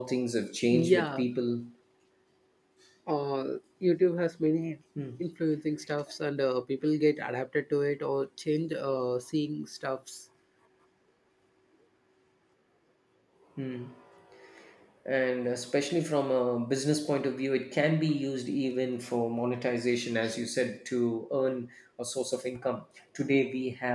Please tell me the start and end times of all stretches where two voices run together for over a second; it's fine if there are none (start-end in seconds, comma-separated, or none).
none